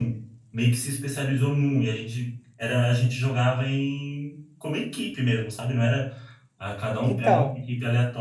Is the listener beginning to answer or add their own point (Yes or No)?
No